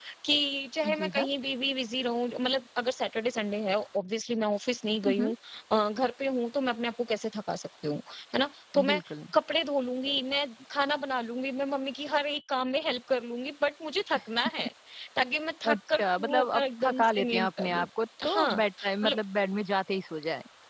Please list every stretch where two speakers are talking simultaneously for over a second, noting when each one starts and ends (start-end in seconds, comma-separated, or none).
15.7-17.9